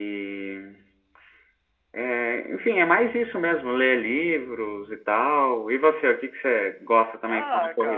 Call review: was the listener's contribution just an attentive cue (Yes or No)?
No